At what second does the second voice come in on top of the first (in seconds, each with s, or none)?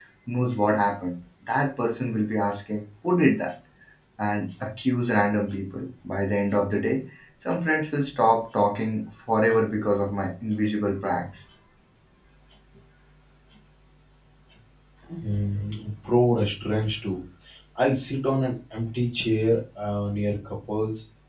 none